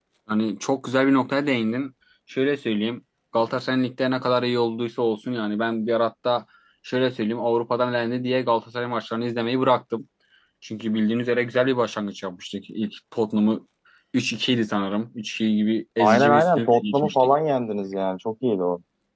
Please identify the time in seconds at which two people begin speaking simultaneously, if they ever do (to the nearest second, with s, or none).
16 s